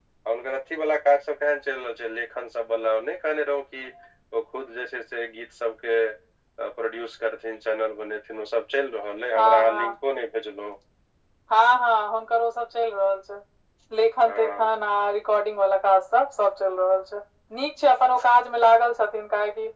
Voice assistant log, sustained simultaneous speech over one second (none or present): none